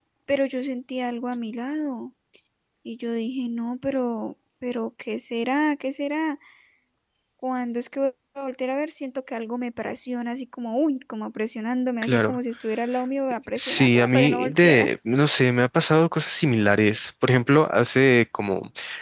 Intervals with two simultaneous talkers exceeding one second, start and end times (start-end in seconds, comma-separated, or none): 13.6-14.9